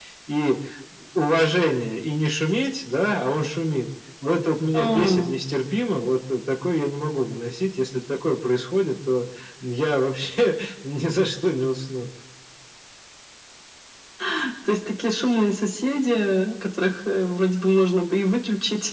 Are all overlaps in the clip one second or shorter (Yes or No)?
Yes